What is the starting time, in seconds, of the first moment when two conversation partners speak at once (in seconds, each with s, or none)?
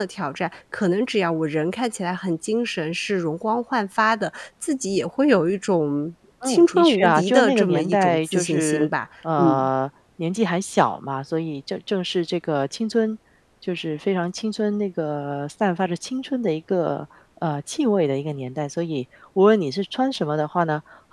6.4 s